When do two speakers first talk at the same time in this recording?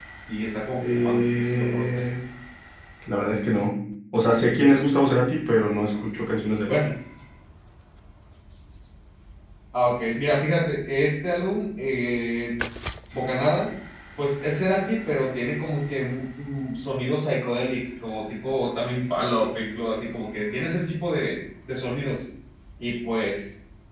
0.8 s

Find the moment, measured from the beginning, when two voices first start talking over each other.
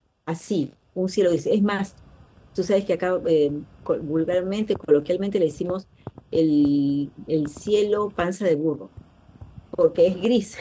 none

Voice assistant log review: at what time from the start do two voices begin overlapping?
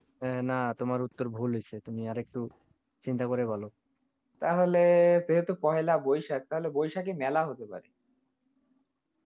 none

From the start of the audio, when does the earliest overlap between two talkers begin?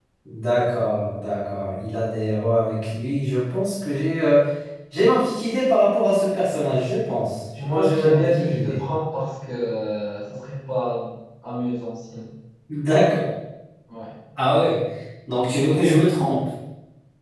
7.6 s

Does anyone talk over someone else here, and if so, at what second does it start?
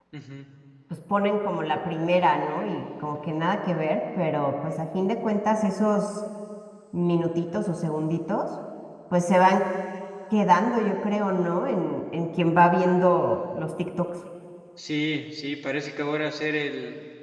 none

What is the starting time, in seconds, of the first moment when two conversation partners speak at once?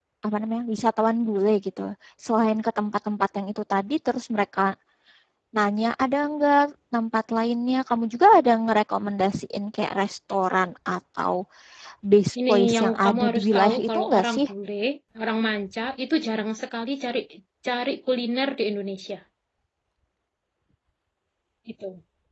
12.5 s

